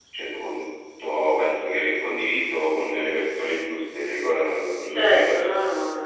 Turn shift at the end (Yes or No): Yes